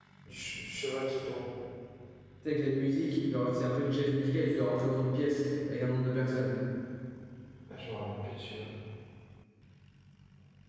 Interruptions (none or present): none